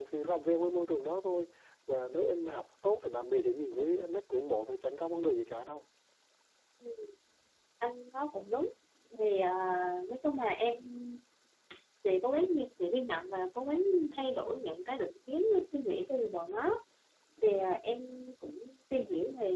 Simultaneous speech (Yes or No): No